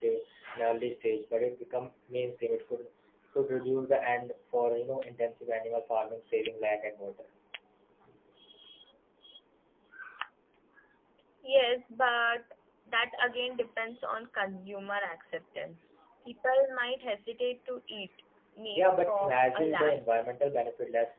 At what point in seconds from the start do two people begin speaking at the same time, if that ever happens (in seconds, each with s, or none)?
18.7 s